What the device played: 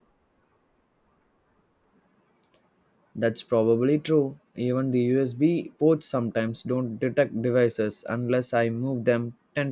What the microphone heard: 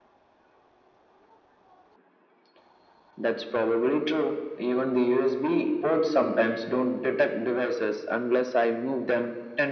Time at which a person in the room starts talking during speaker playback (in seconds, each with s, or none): none